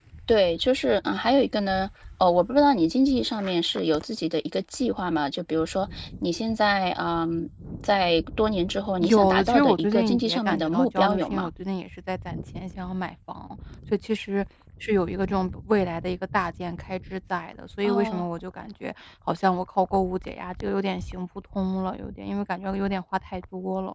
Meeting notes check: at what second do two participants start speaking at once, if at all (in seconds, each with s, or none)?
9.0 s